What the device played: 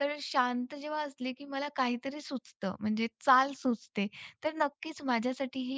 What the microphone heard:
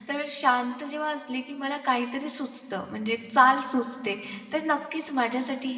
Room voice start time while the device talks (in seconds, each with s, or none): none